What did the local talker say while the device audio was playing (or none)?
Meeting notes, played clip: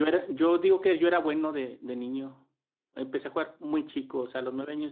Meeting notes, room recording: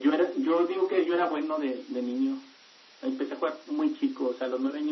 none